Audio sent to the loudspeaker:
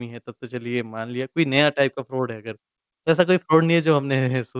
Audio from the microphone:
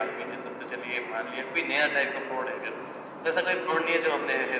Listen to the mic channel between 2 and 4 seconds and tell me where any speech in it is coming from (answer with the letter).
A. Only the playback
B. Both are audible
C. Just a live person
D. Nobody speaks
A